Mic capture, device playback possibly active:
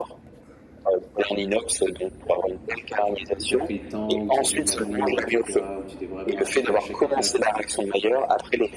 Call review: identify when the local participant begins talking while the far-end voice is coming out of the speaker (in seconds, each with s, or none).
3.4 s